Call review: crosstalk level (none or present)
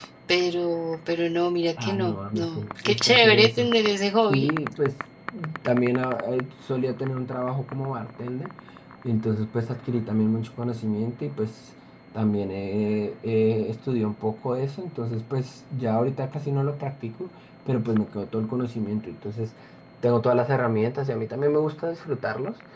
present